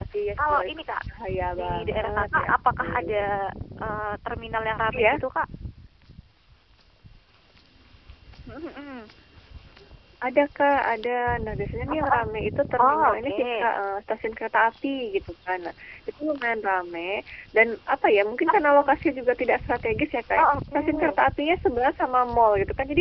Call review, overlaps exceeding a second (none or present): present